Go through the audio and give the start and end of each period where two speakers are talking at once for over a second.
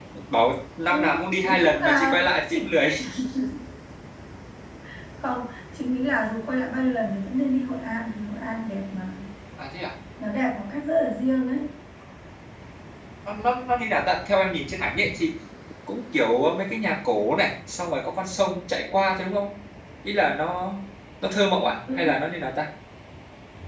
0.9-2.7

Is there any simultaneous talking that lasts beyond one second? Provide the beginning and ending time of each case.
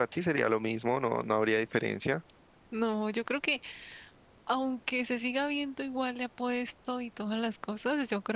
none

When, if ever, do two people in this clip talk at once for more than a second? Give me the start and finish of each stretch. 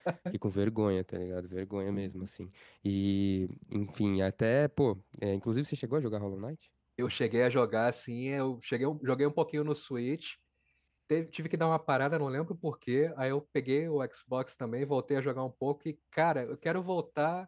none

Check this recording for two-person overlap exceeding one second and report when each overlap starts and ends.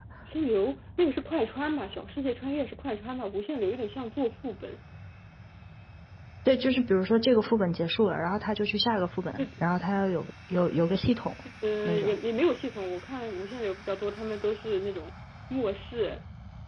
none

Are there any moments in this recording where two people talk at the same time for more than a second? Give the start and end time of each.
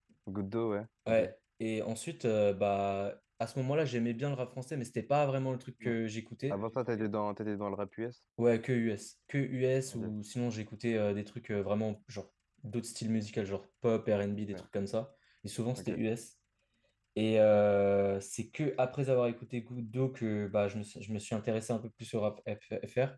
none

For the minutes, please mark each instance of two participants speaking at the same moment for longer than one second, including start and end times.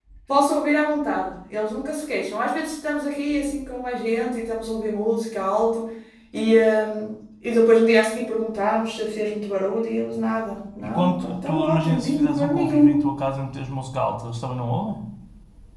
10.8-13.0

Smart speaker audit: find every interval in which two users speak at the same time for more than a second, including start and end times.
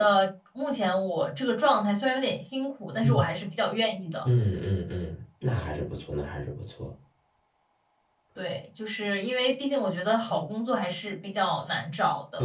none

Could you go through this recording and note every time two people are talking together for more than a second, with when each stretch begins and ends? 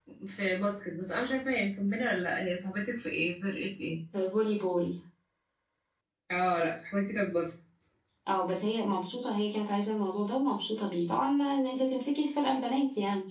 none

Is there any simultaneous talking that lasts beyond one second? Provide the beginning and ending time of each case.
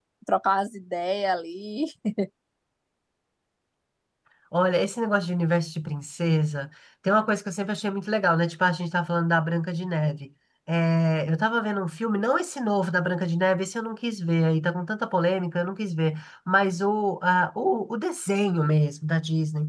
none

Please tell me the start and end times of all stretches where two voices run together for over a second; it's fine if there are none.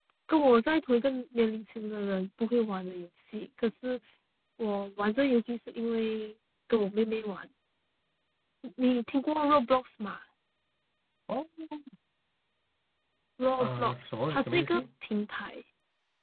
13.6-14.8

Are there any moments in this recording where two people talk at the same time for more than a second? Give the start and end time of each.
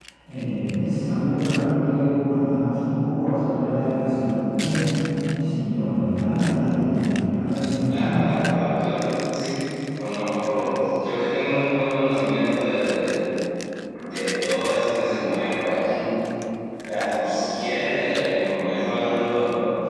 none

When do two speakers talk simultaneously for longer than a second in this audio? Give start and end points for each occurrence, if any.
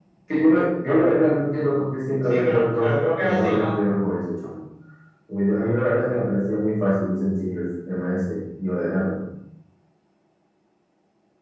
2.3-3.7

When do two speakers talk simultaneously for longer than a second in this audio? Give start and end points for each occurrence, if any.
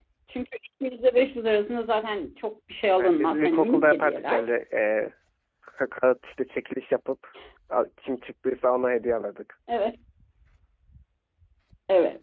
3.0-4.5

